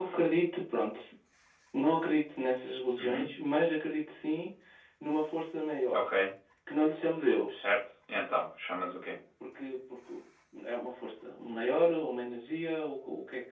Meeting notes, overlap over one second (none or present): none